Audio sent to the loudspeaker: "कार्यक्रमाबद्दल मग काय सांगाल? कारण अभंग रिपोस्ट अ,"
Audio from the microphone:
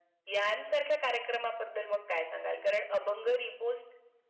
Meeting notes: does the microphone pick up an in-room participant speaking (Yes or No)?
No